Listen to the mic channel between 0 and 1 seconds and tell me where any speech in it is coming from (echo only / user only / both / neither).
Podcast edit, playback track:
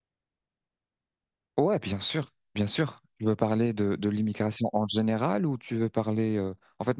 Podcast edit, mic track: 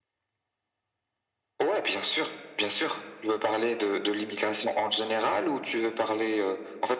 neither